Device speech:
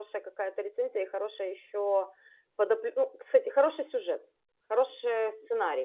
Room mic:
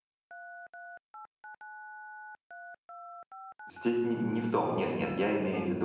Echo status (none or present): none